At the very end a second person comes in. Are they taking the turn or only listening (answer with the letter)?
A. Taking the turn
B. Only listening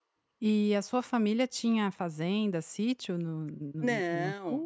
A